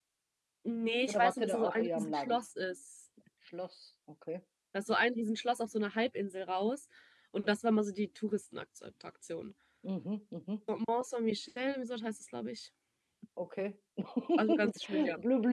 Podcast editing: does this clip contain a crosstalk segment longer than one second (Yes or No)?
Yes